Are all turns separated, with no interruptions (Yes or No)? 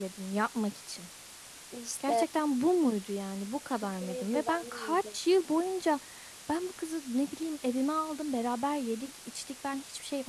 No